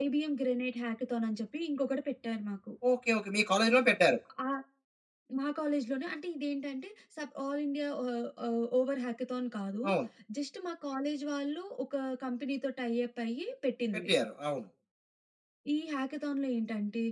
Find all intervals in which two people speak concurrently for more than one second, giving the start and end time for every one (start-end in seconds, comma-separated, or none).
none